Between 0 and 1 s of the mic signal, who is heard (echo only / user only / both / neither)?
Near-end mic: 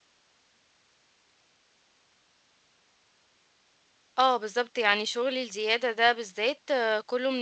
neither